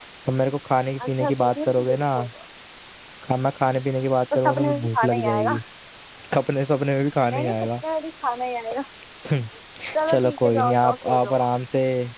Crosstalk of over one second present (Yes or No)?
Yes